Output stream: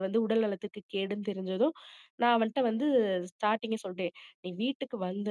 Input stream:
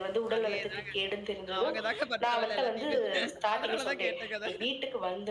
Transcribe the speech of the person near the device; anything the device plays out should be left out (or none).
அதேதாங்க. அவுங்க தாங்க பண்ற வேல எல்லாத்தையுமே! அதனால தான் கேட்டேங்க அத.